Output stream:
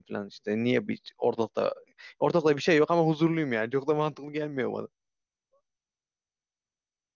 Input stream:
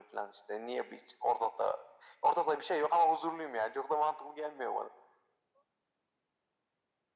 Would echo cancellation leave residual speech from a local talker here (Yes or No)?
No